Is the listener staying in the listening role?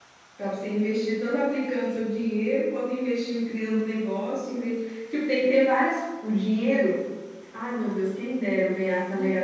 No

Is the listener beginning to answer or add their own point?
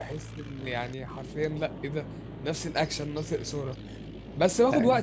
No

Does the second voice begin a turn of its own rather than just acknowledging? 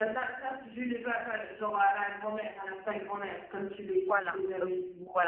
Yes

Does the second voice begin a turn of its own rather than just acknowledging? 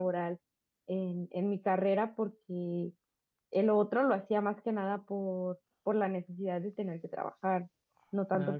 No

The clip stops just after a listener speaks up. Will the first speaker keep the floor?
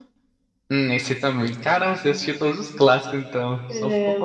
No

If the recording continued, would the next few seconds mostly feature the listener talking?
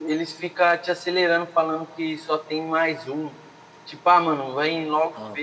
No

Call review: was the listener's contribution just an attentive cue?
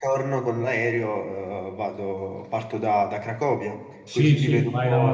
No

